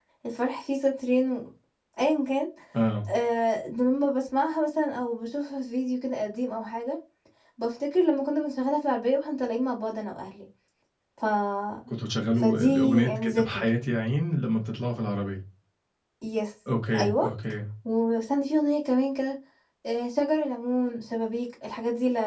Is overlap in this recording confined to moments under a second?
No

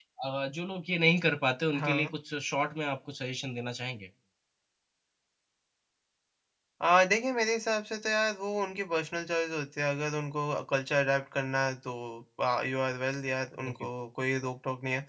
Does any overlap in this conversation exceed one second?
No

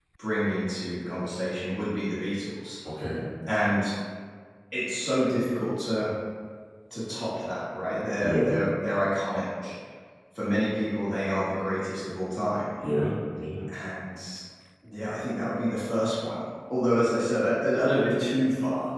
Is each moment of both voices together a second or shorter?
Yes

